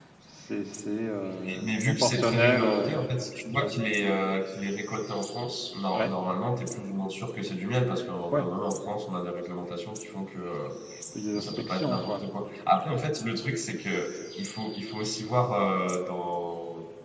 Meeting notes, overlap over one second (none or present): present